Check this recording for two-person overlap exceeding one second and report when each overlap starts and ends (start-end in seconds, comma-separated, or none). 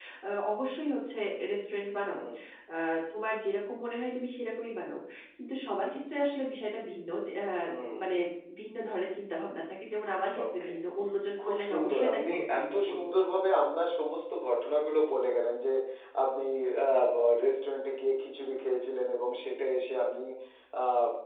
11.4-13.0